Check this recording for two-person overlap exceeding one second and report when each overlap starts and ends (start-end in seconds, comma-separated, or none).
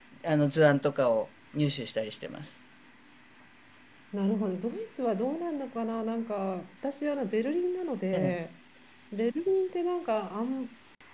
none